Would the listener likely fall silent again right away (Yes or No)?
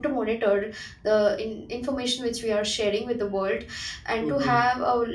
Yes